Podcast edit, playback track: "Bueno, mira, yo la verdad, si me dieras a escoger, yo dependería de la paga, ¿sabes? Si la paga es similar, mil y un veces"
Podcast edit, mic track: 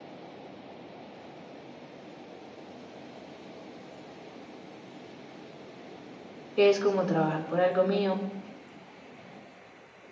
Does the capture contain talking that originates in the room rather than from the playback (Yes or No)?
Yes